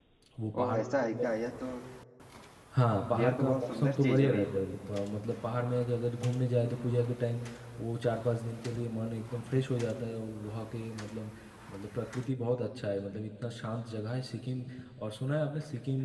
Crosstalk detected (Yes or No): Yes